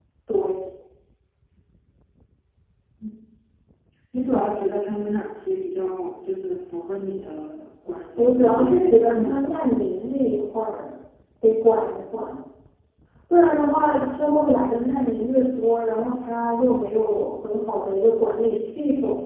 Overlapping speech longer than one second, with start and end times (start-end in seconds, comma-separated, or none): 8.2-9.6